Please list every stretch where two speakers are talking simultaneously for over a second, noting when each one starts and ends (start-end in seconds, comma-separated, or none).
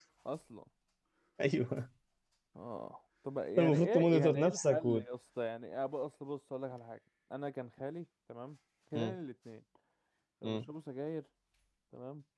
3.6-5.0